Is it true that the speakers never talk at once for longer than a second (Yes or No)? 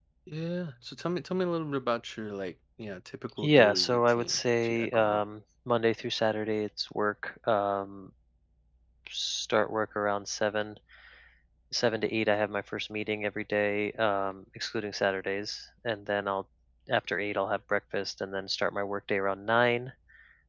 No